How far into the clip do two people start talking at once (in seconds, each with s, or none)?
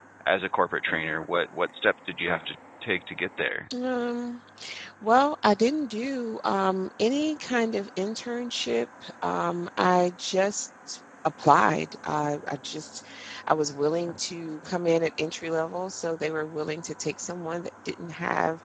none